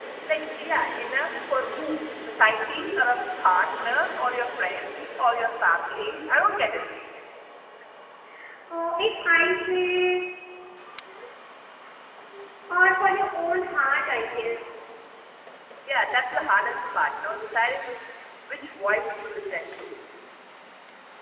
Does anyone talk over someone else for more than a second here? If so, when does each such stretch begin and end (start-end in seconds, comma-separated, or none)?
none